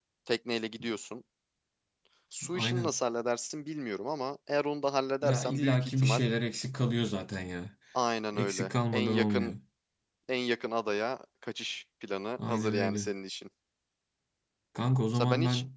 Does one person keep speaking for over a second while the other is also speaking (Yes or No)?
Yes